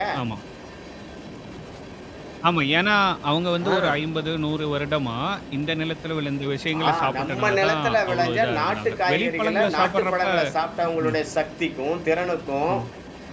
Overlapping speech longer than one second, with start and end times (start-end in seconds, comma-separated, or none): 6.9-10.2